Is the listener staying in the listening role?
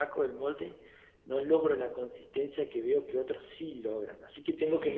No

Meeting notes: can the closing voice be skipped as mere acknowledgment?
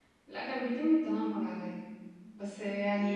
Yes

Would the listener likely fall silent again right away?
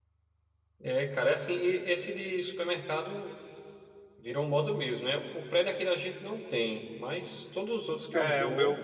No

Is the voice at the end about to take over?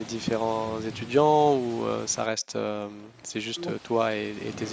No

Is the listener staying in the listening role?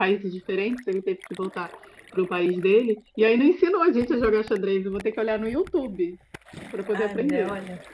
No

